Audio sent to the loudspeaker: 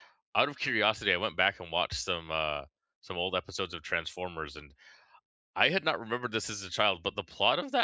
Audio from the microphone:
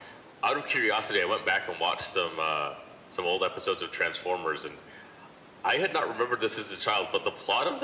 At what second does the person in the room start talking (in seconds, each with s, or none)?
none